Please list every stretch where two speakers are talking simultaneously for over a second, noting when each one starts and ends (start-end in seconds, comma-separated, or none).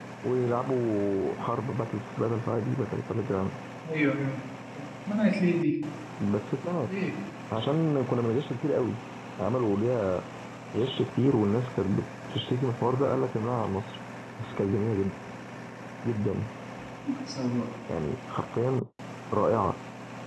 none